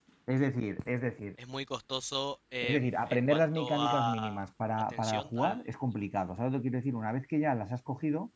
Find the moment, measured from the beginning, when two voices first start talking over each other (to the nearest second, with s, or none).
3 s